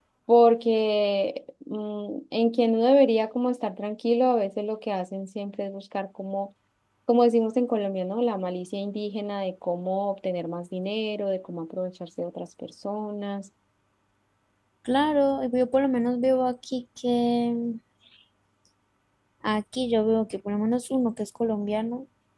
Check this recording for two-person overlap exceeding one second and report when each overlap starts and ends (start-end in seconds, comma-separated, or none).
none